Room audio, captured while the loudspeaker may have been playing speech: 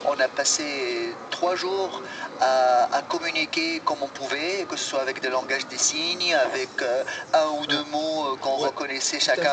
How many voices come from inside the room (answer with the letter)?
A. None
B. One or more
B